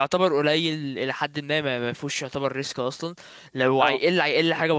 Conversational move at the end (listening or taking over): listening